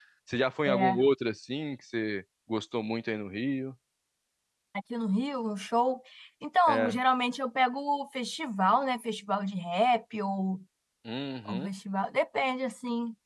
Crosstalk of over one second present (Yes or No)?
No